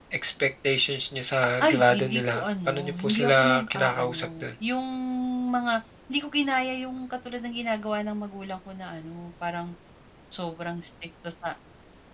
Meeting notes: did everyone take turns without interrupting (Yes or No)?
No